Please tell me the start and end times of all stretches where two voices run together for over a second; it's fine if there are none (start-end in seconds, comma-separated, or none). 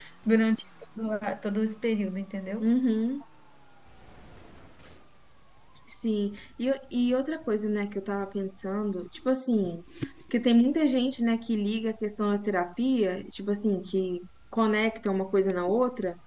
none